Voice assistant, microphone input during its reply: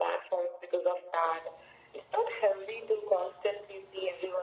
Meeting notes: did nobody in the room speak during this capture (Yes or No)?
Yes